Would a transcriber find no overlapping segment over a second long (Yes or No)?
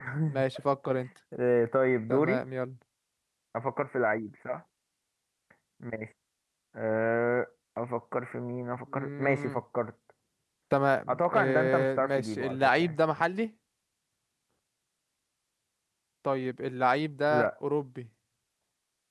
No